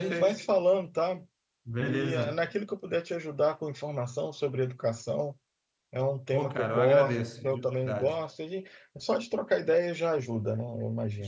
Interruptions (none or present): present